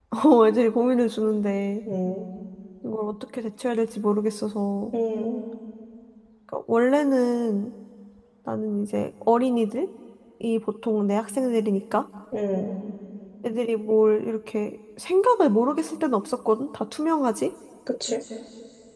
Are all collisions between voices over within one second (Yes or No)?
Yes